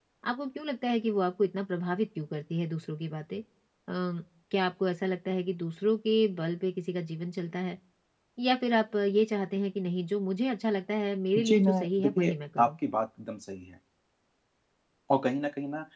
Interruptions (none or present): present